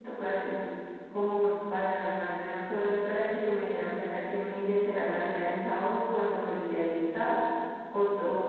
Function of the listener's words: listening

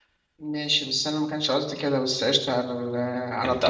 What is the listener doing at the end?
listening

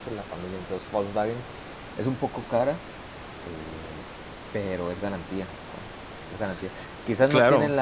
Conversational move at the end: listening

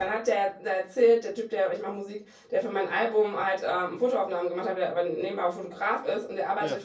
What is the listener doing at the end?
listening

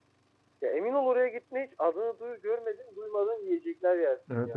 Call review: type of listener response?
taking over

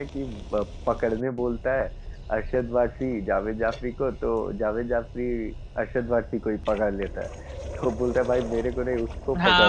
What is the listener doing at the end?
taking over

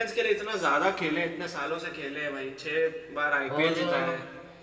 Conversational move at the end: taking over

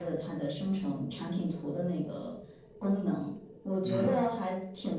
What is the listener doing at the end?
listening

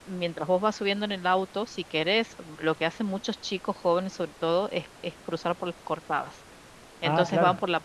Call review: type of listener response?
listening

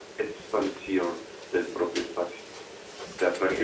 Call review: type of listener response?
taking over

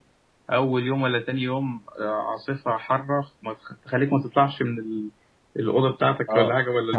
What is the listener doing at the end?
taking over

